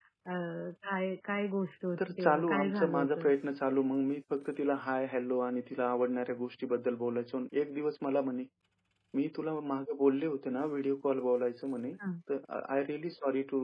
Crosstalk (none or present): present